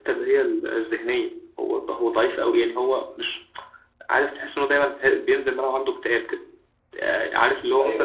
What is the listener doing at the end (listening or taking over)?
listening